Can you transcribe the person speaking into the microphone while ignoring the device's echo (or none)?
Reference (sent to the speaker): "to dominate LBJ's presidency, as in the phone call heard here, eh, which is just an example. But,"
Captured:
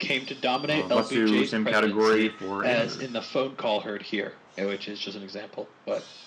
Um, let's do same category for 800.